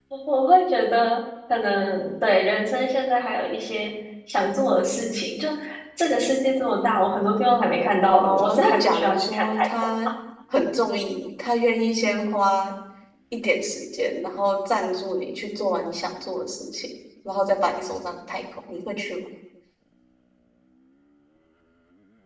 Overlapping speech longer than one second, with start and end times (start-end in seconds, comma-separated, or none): 8.1-9.9